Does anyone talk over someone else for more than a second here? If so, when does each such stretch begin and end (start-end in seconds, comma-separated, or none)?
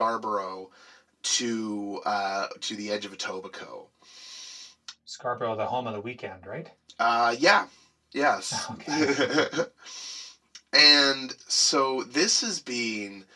none